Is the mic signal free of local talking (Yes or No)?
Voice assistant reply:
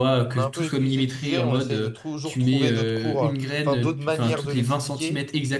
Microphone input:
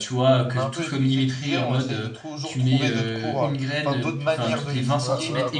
No